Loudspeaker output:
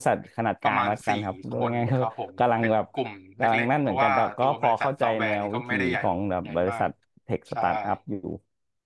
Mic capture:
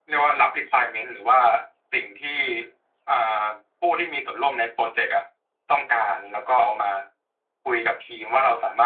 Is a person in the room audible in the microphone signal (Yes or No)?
Yes